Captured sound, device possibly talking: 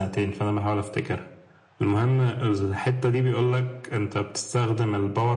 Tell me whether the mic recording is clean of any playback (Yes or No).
No